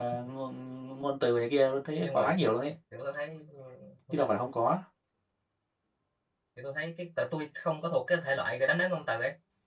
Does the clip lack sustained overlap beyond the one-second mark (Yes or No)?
Yes